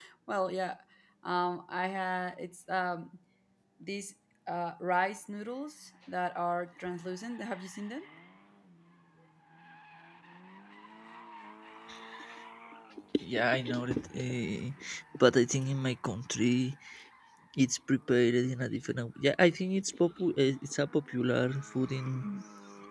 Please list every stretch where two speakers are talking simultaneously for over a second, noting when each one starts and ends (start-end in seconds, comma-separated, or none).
none